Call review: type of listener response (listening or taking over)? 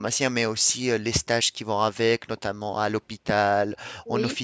listening